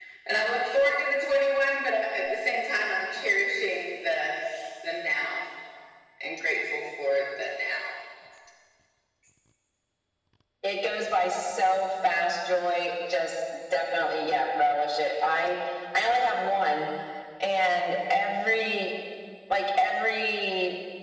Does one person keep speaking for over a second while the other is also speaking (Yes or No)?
No